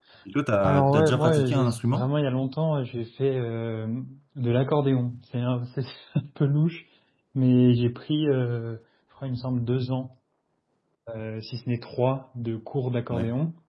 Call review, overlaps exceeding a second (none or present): present